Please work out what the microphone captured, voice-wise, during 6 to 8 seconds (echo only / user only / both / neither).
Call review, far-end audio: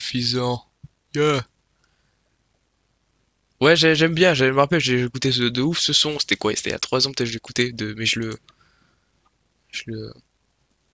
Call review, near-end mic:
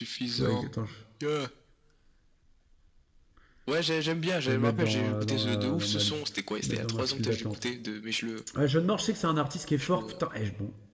both